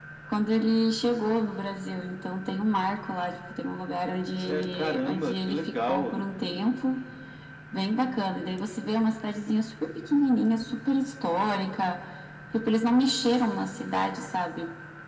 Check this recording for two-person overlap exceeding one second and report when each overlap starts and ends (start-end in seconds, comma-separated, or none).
4.4-6.1